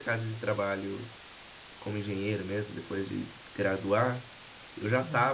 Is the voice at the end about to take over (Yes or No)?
No